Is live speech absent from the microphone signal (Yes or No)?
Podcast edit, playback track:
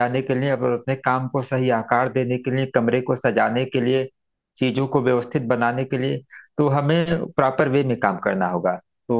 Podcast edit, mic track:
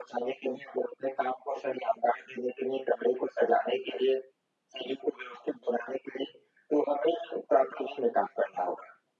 Yes